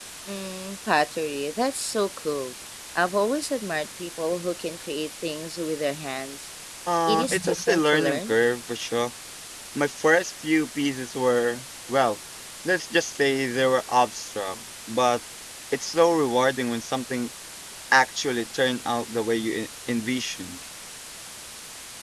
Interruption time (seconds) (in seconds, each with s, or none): 7.1 s